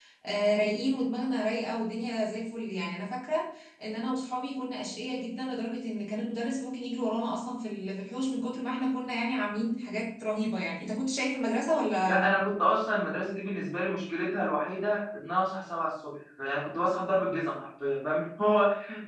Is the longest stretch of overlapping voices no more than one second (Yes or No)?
Yes